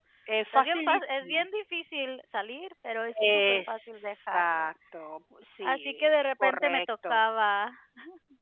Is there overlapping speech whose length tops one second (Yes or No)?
Yes